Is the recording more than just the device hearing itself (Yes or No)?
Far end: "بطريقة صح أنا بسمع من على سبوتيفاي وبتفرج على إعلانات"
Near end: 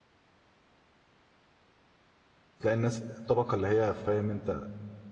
Yes